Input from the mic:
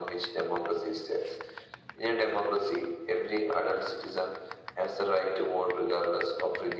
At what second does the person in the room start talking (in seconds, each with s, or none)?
none